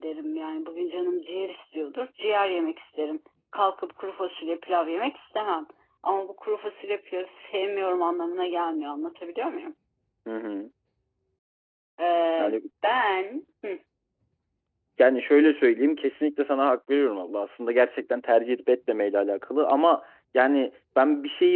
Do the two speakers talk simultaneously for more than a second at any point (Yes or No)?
No